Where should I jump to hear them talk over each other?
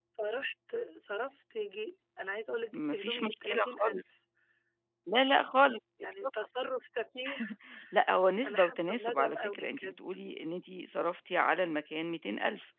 2.7 s

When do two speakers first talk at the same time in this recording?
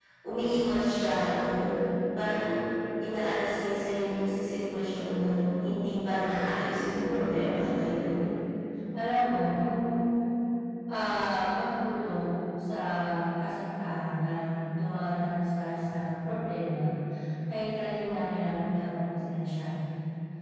6.7 s

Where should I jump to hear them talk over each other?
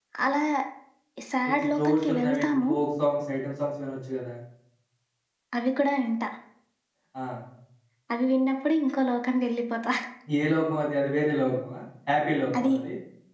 1.5 s

